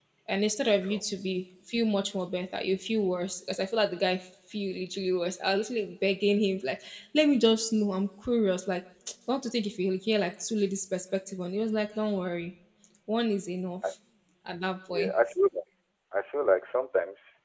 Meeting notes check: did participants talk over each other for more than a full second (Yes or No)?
No